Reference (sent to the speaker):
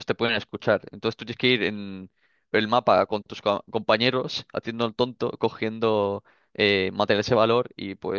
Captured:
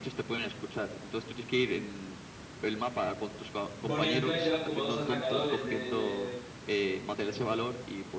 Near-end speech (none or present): present